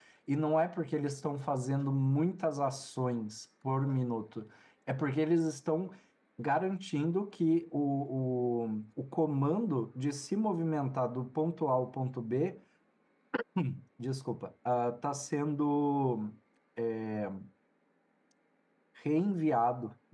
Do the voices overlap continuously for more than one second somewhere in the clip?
No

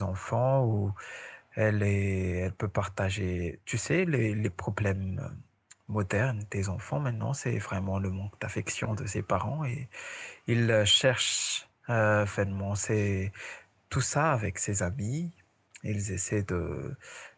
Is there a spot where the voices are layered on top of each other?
No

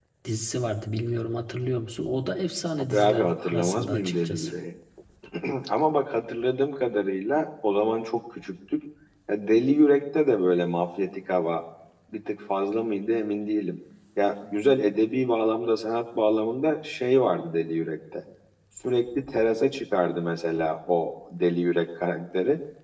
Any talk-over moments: Yes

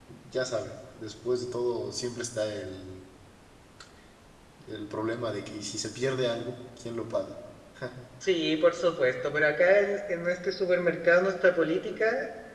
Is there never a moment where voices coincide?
Yes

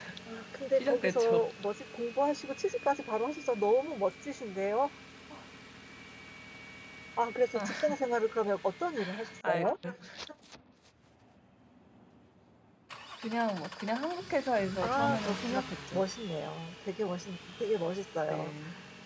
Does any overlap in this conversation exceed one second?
Yes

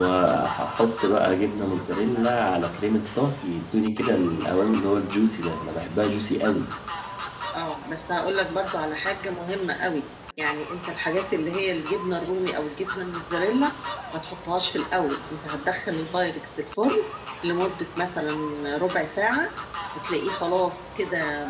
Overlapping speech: No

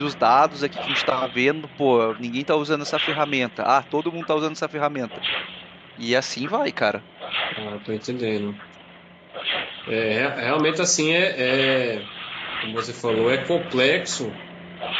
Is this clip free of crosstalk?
Yes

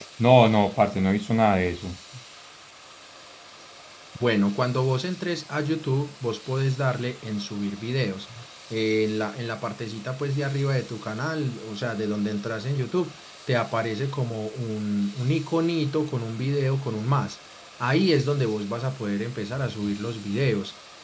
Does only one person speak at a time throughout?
Yes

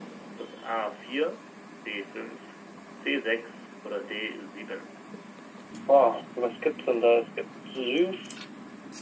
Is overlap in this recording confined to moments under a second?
Yes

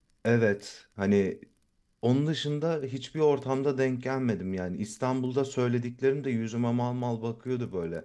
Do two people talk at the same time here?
No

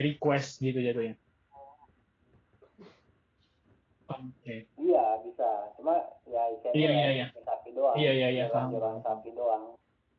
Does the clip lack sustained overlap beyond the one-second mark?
No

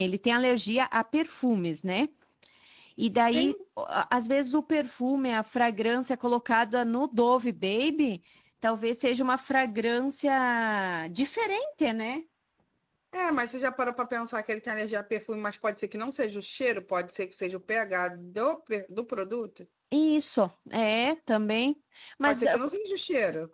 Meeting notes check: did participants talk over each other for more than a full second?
No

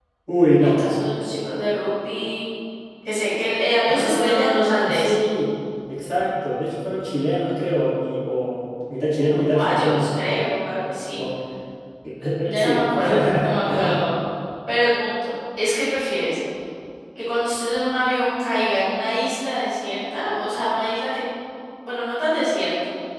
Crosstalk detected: Yes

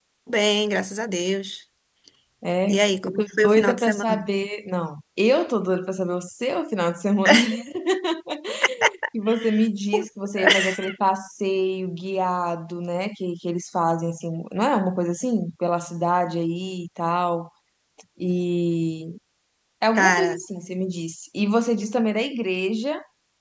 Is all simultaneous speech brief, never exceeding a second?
No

